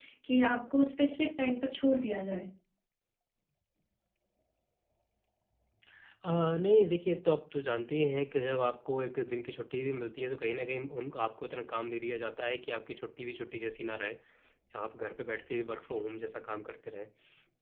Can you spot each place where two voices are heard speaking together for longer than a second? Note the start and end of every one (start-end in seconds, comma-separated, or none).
none